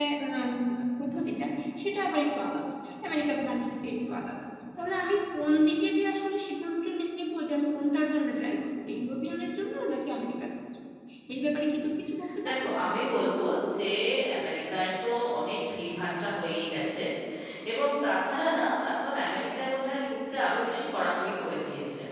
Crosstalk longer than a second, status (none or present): none